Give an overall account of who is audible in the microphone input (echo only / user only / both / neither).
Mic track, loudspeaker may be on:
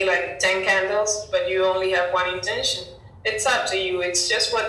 echo only